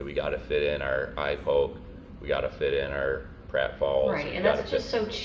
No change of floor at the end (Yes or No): No